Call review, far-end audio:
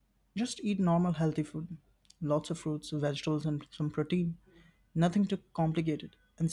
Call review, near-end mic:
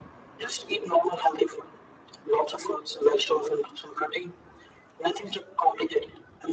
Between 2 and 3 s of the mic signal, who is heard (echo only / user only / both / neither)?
echo only